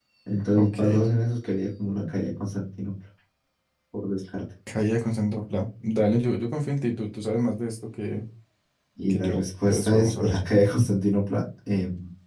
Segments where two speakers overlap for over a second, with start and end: 9.1-10.4

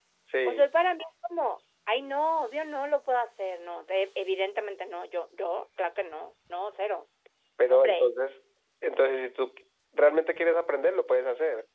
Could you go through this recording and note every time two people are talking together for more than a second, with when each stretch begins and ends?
none

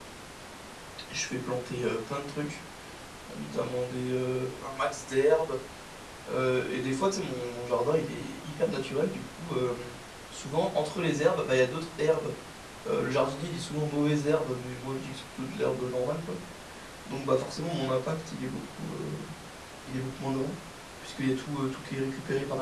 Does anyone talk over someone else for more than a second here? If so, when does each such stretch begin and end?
none

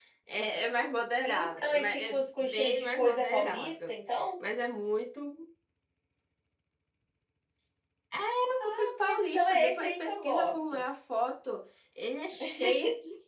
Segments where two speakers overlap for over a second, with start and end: 1.2-3.9, 8.6-10.8

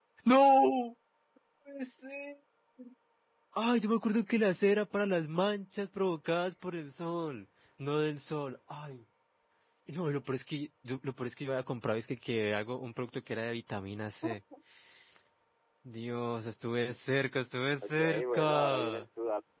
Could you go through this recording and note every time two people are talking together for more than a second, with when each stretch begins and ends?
17.8-19.1

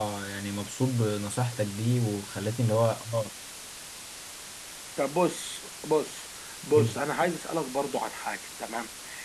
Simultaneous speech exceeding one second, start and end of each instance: none

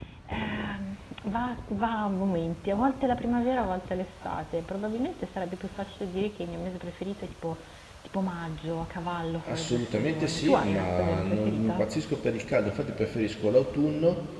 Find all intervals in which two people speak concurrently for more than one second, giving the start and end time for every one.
9.5-11.8

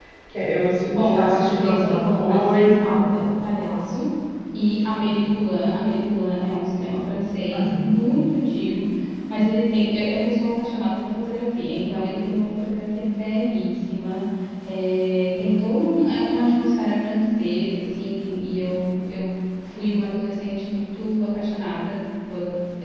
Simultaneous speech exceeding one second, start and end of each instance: 0.9-3.0

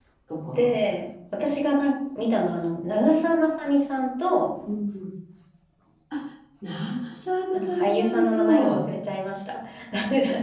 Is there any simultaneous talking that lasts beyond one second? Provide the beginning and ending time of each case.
7.5-8.8

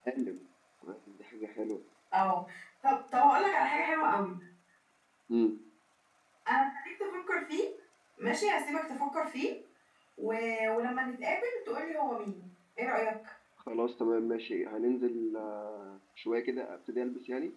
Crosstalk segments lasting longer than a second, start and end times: none

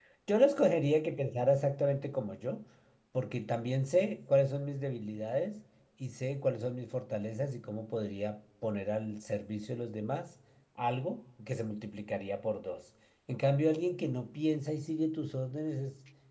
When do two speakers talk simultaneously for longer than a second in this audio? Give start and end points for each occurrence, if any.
none

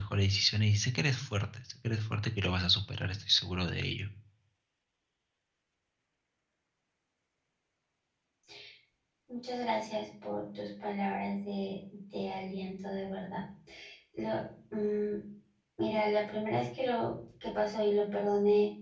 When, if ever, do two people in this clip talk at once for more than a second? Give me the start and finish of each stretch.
none

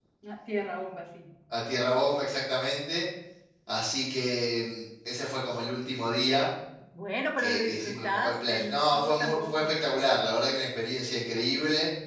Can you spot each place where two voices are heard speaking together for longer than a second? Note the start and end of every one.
7.4-9.7

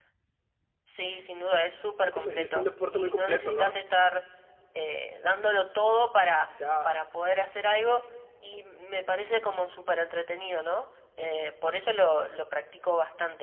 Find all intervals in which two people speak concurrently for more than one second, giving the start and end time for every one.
2.0-3.7

